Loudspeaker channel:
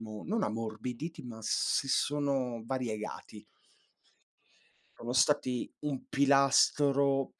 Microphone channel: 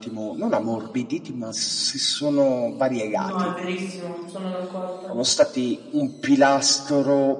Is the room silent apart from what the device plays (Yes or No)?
No